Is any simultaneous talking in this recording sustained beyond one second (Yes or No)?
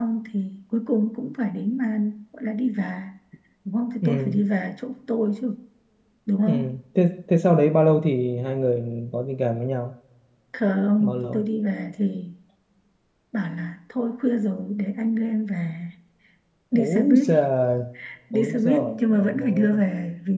Yes